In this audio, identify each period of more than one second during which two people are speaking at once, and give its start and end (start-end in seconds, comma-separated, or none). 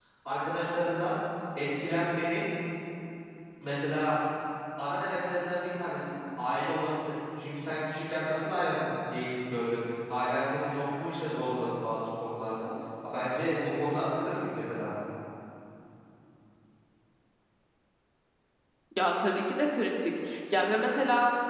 none